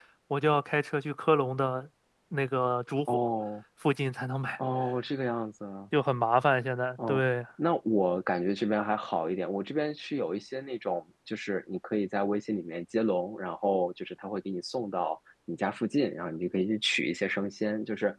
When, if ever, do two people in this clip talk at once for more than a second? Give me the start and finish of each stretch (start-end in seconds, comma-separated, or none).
none